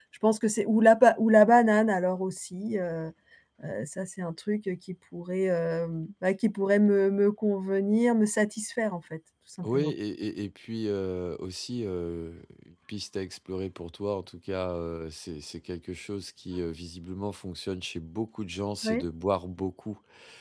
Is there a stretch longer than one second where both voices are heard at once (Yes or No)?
No